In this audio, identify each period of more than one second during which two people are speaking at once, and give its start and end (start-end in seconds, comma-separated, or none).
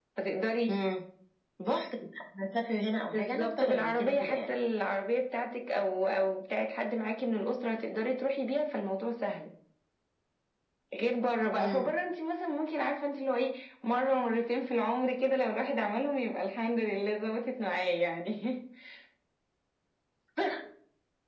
3.1-4.6